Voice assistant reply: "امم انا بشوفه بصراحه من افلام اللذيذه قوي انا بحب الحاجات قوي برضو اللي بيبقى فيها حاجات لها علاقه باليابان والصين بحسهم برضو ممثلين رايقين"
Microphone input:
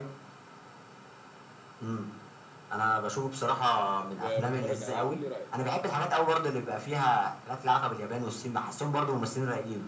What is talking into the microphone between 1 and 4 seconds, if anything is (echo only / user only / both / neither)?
echo only